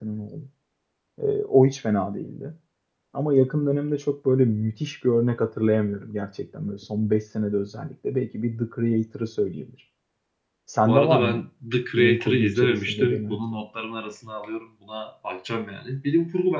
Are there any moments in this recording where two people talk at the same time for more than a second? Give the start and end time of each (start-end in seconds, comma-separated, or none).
11.9-13.4